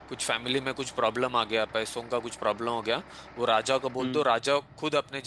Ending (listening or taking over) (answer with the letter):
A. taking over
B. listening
B